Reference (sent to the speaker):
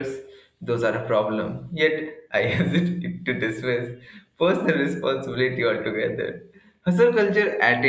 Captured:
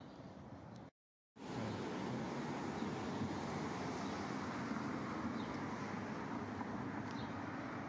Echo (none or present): none